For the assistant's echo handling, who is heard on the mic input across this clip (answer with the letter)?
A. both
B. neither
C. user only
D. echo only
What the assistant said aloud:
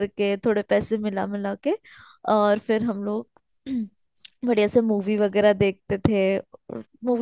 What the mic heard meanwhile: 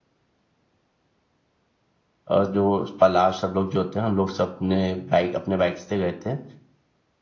C